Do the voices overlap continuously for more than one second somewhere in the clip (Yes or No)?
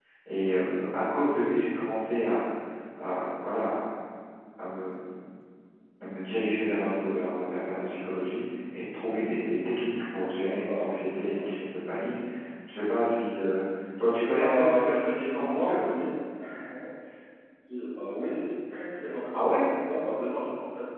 Yes